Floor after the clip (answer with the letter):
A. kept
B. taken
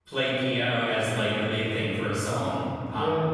B